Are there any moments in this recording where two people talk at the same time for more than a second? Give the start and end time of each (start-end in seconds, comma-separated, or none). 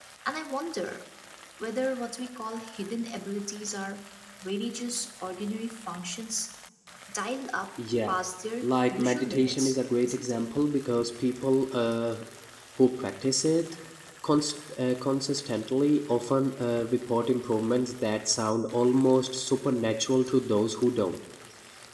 8.6-10.5